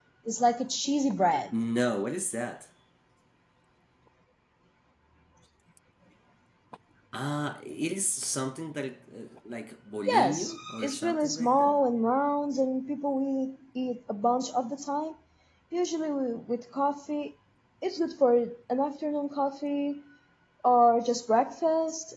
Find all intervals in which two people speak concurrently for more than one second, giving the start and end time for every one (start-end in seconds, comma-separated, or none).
10.1-11.8